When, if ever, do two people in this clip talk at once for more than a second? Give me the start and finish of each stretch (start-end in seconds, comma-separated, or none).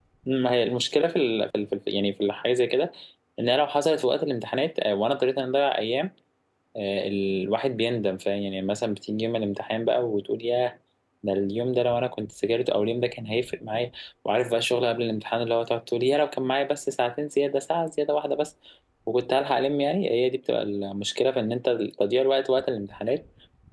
none